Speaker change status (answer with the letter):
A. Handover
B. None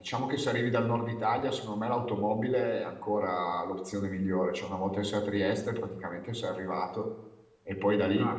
A